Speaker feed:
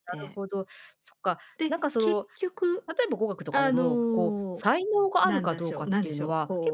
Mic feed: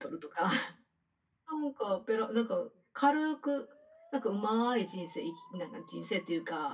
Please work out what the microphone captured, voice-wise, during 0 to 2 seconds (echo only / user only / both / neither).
user only